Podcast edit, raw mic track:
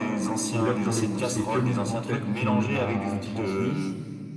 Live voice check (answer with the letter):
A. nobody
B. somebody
B